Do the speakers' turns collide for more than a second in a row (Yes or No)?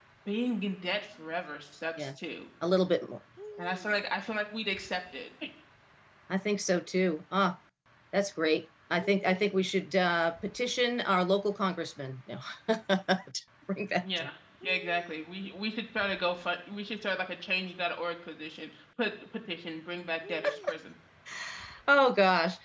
No